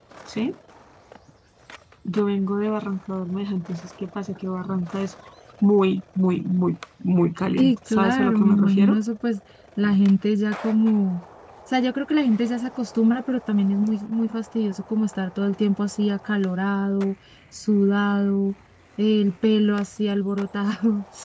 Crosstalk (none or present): present